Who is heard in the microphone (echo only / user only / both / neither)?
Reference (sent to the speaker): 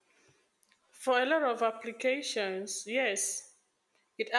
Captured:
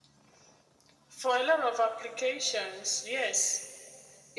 echo only